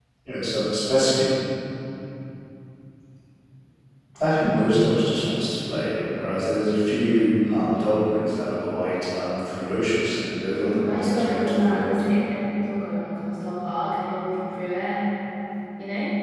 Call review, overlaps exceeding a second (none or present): present